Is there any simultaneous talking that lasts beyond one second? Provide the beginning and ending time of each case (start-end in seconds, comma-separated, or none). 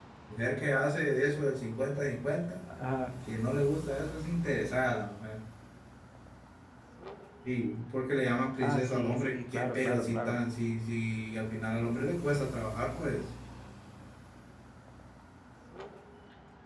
8.6-10.4